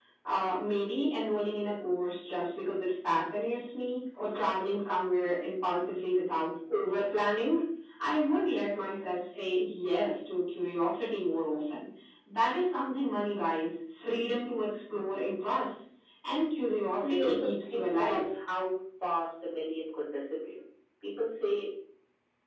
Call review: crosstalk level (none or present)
present